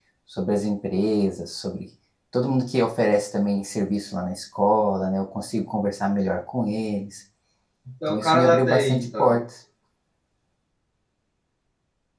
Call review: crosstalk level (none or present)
present